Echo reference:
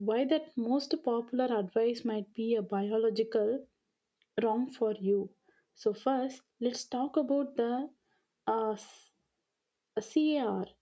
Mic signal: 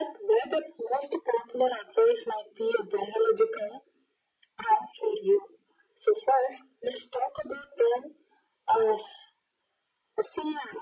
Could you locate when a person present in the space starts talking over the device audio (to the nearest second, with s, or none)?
none